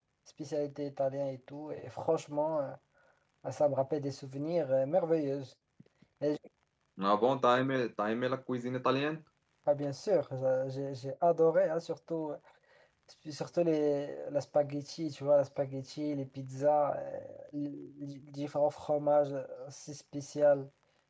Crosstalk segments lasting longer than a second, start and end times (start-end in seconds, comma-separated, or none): none